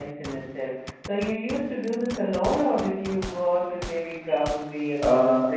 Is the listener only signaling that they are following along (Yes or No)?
No